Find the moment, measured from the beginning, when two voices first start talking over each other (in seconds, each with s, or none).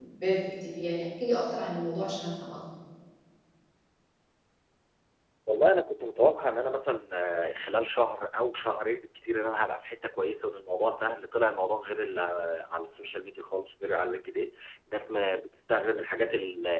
none